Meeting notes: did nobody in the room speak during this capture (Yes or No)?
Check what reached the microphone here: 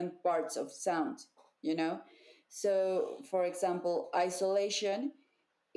Yes